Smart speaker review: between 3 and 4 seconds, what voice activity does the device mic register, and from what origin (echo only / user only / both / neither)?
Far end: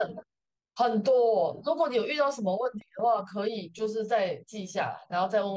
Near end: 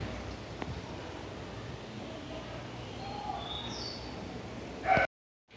neither